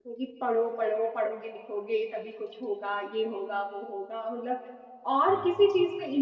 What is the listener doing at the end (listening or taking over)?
listening